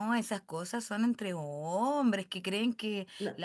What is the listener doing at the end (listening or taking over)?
listening